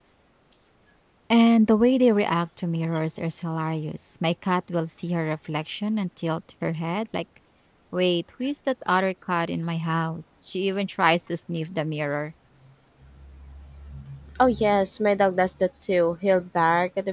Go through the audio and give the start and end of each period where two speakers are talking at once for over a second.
none

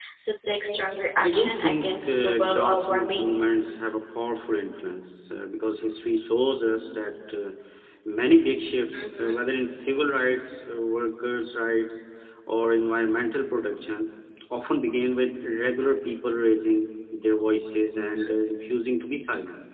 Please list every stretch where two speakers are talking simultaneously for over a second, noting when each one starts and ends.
1.2-3.3

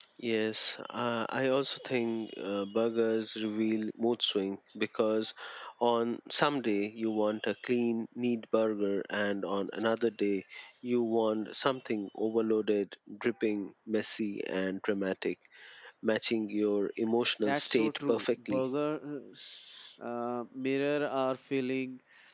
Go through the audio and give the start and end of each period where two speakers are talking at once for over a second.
17.4-18.6

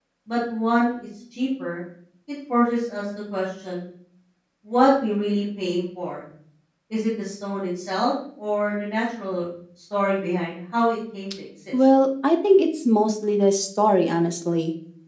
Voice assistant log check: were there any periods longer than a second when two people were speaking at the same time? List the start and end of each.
none

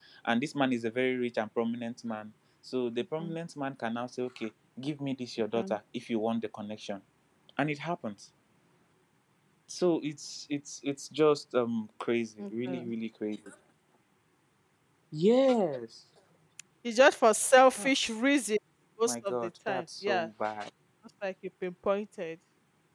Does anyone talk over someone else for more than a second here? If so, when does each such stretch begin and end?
19.1-20.3

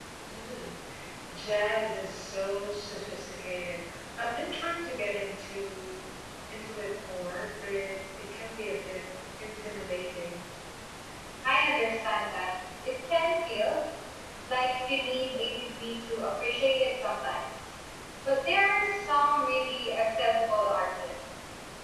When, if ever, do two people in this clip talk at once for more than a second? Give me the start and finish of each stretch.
none

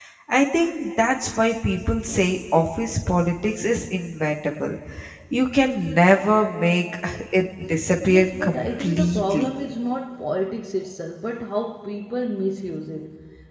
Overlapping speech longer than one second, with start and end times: 8.1-9.5

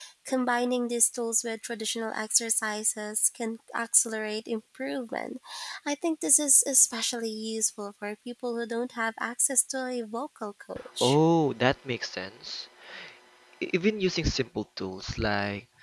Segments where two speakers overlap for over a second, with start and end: none

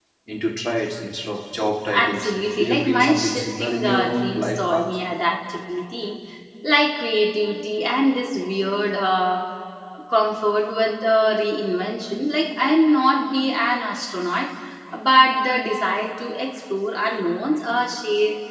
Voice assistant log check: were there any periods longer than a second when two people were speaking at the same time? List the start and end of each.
1.9-5.0

